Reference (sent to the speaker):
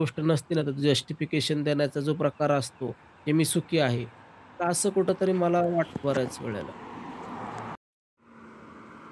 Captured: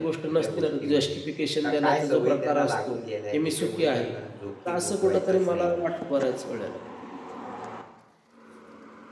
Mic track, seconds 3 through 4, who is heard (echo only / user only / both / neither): both